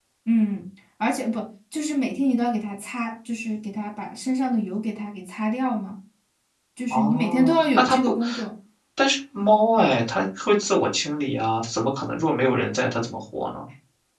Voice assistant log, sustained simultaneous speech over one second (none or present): present